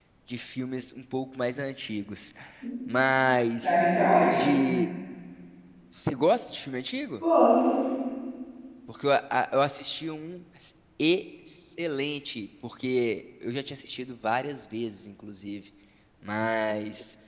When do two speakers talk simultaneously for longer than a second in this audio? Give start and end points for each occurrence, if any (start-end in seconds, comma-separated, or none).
none